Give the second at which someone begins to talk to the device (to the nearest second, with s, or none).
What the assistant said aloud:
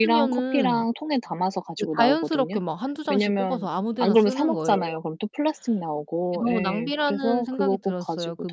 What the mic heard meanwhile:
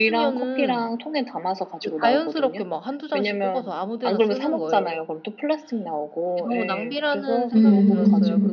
8 s